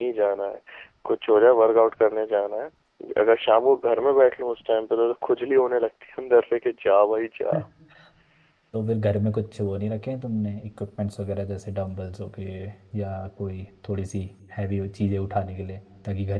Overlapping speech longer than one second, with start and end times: none

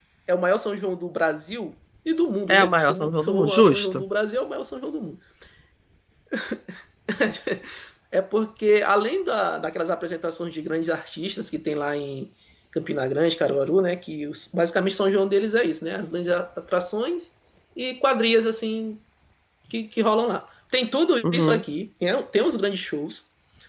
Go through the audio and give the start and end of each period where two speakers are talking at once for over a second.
2.5-4.0

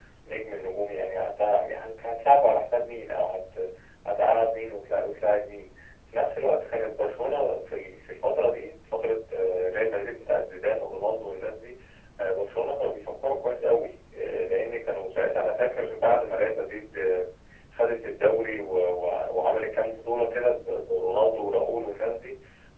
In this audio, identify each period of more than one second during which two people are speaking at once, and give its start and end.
none

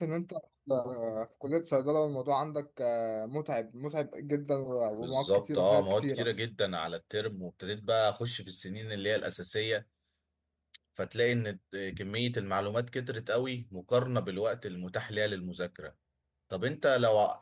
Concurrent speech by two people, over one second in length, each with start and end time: 5.0-6.3

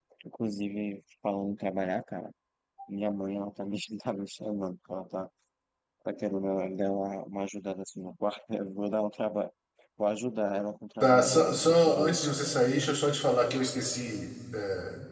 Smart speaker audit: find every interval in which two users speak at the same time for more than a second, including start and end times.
11.0-12.3

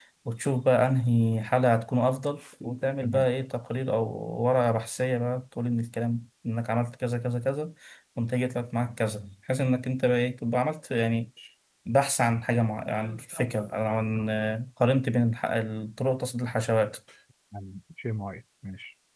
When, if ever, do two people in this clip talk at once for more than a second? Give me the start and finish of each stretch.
none

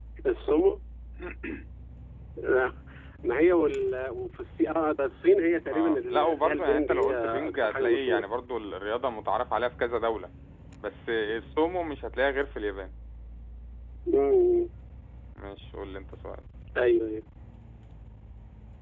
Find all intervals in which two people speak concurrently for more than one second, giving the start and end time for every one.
5.7-8.2

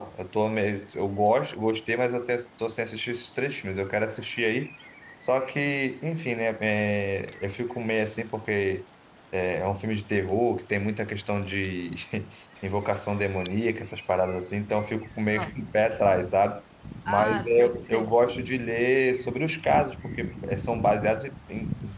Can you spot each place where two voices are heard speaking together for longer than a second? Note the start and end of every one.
17.1-18.4

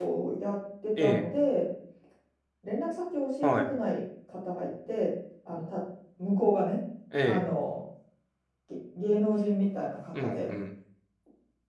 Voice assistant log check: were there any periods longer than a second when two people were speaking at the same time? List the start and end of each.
none

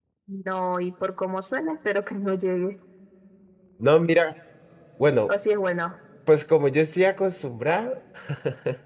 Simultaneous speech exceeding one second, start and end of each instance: none

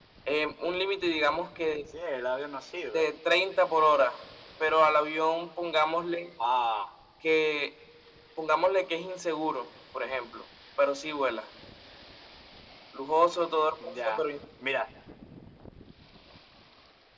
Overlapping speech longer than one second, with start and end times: none

